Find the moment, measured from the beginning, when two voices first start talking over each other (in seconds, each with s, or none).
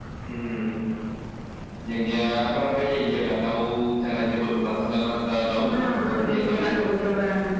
5.6 s